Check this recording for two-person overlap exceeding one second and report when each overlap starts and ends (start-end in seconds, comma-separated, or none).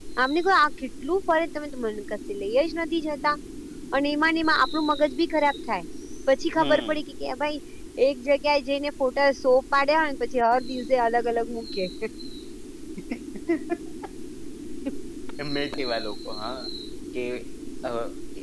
none